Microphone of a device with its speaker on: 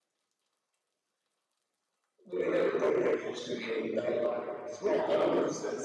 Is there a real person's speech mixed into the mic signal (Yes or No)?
Yes